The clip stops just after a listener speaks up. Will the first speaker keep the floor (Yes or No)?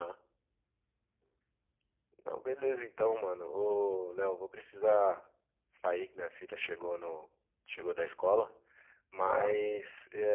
Yes